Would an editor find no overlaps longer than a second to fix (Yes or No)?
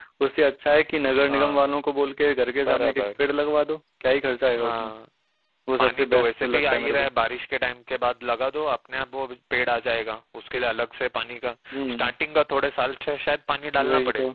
No